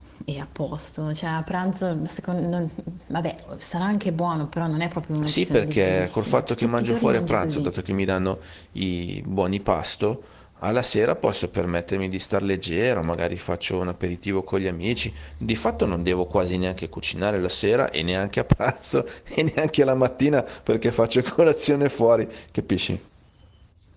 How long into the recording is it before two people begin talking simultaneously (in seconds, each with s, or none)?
5.2 s